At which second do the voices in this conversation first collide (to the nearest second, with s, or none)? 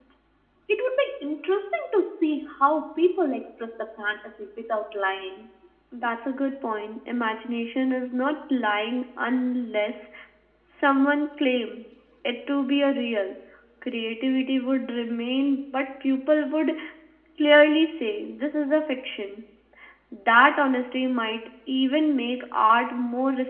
none